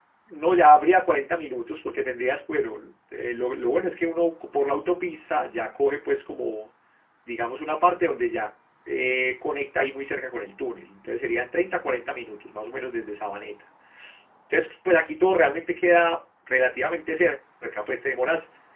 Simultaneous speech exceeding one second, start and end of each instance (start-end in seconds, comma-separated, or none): none